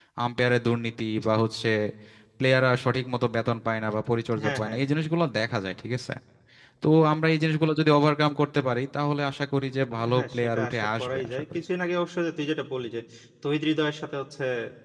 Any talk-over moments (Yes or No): Yes